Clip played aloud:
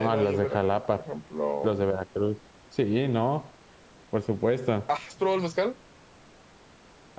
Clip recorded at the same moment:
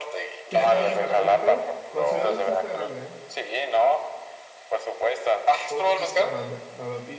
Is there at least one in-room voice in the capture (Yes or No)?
Yes